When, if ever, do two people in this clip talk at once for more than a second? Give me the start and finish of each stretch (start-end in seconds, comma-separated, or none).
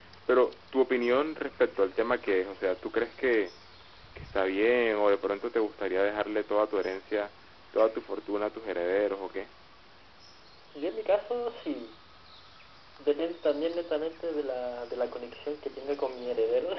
none